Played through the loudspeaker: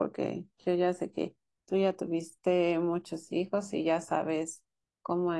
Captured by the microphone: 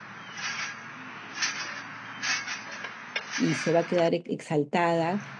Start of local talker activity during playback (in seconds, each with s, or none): 3.4 s